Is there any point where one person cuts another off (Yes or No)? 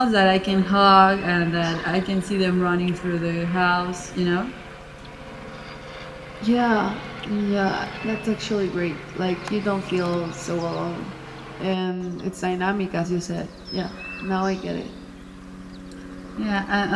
No